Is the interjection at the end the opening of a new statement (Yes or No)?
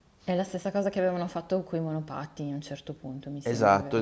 Yes